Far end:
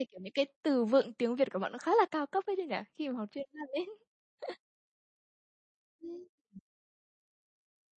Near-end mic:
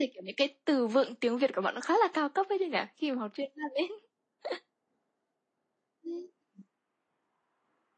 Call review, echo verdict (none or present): present